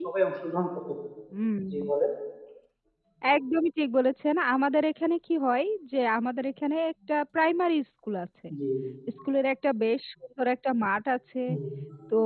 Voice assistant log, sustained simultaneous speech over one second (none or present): none